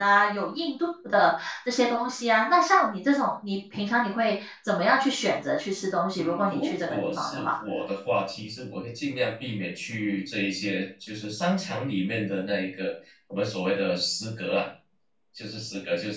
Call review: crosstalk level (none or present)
present